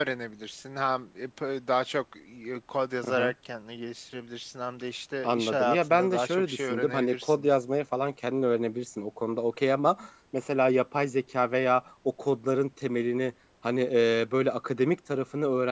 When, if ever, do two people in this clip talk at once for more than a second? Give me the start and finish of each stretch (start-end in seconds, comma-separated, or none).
5.2-7.5